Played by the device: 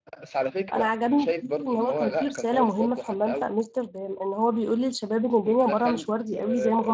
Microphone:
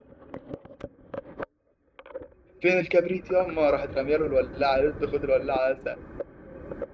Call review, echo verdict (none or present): none